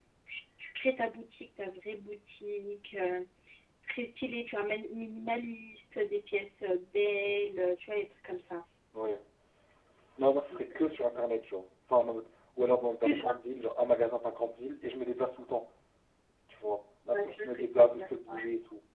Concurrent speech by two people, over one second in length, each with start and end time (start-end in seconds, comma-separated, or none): 17.1-18.4